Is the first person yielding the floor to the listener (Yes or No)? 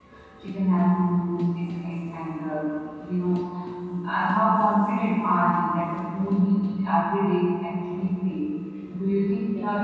No